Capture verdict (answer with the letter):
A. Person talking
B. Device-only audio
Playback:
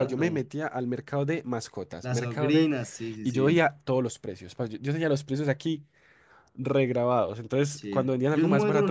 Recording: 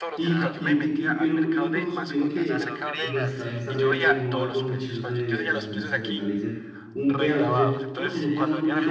A